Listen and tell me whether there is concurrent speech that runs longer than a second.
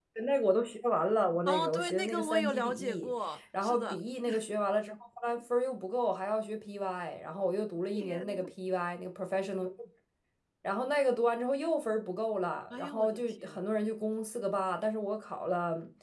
Yes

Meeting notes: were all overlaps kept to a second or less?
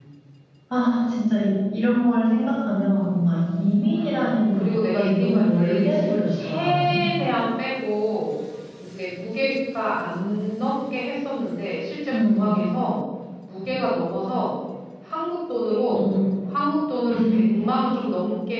No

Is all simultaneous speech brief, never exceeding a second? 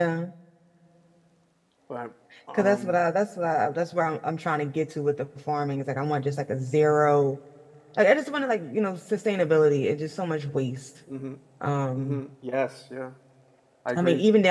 Yes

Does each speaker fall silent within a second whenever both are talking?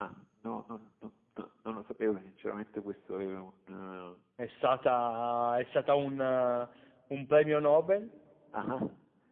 Yes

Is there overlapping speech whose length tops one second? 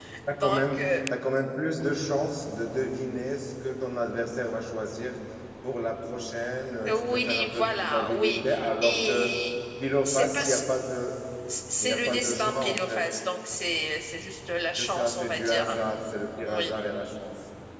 Yes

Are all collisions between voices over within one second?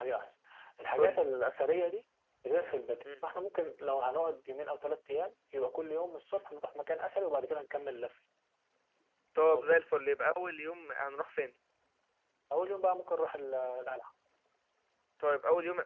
Yes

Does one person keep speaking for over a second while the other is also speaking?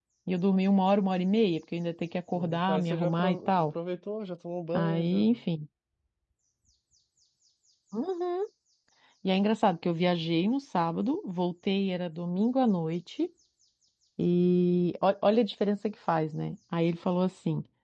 Yes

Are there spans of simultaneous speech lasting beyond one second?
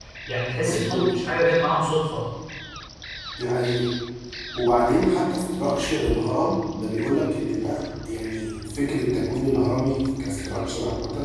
No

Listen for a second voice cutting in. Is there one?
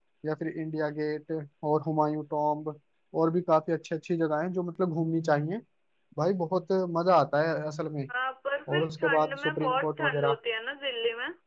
Yes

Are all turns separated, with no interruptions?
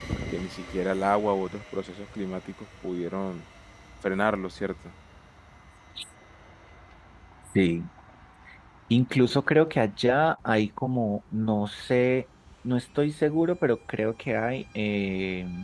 Yes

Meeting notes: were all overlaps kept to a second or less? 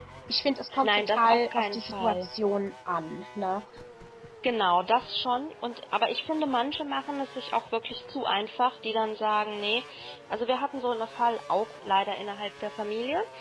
No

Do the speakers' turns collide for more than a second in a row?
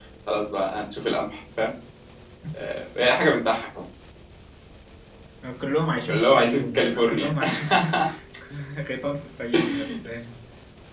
Yes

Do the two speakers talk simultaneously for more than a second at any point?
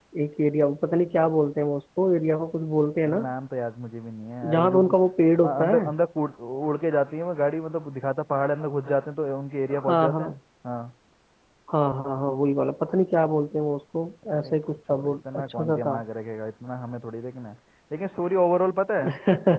Yes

